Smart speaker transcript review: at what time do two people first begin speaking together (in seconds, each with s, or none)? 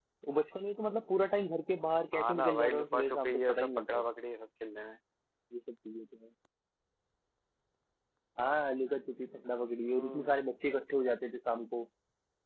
2.1 s